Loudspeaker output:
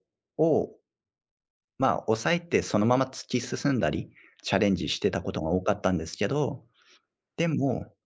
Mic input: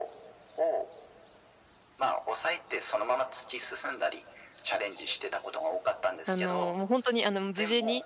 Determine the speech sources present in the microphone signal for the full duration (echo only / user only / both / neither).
both